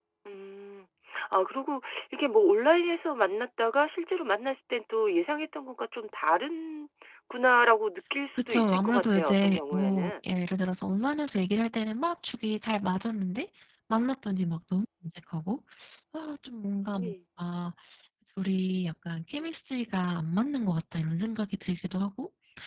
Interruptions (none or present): present